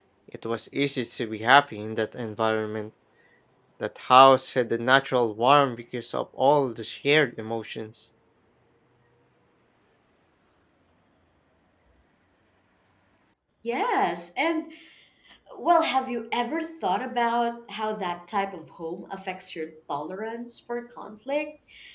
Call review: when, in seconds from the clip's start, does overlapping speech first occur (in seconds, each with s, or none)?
none